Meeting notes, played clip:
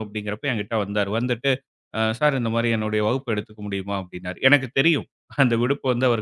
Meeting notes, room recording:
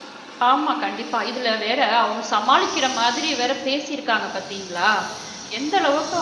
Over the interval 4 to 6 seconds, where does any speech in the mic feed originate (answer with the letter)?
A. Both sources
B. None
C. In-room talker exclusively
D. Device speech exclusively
C